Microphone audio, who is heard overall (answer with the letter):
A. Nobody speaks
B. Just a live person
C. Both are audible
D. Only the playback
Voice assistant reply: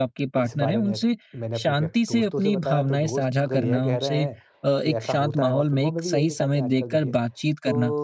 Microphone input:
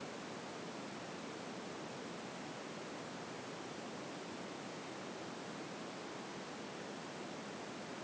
A